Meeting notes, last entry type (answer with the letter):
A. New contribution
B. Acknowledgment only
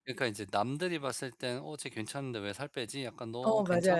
B